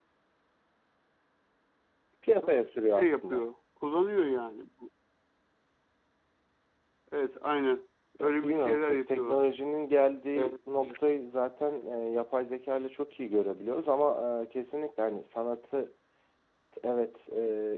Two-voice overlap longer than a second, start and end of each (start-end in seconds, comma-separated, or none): 8.2-9.4